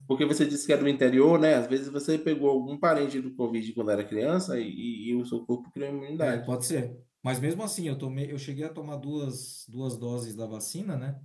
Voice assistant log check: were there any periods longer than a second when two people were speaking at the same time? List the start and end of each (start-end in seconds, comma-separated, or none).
none